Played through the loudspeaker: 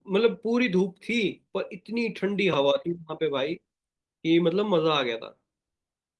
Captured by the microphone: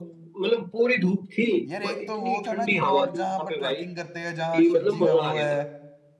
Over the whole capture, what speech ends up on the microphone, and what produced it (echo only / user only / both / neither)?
both